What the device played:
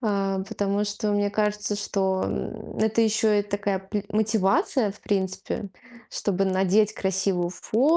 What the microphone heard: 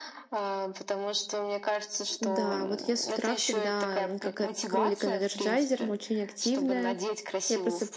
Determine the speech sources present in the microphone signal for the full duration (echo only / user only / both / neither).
both